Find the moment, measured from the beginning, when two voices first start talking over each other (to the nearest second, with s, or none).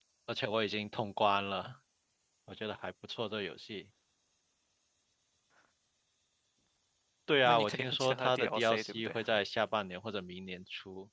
7 s